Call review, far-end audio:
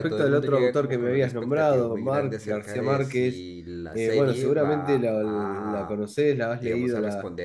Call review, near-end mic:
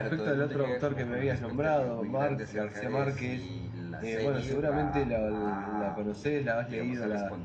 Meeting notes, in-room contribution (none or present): none